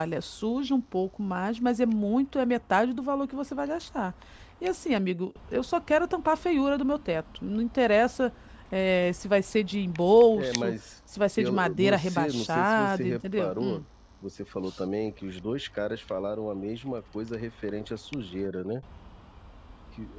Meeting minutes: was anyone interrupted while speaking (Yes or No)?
Yes